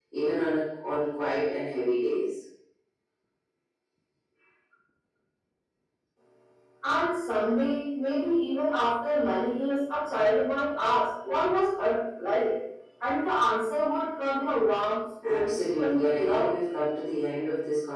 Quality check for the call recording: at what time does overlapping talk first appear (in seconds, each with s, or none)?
15.2 s